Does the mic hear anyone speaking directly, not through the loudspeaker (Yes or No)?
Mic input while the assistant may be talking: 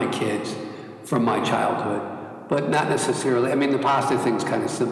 No